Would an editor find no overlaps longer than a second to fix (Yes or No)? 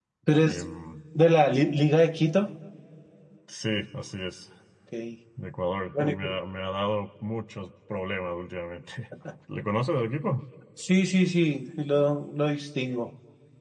Yes